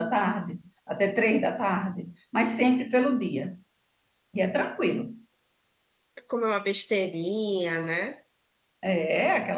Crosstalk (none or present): none